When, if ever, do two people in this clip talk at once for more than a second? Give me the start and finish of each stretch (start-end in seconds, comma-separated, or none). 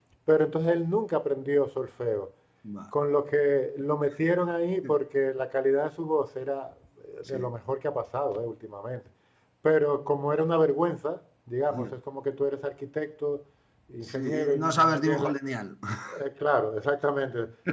14.0-15.3